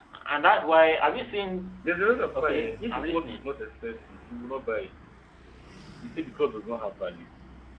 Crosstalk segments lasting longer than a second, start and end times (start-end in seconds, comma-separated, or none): 2.3-3.5